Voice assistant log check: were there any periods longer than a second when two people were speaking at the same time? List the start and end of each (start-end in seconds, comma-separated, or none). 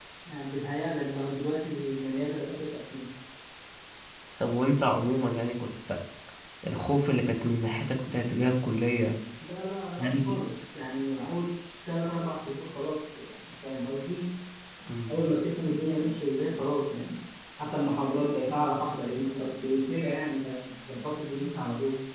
none